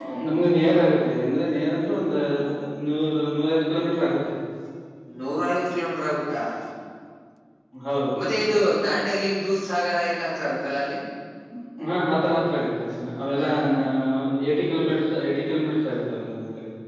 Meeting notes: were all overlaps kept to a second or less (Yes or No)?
Yes